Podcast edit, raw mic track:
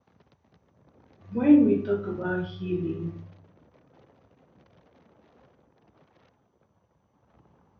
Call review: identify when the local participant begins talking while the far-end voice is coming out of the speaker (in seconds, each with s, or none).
1.3 s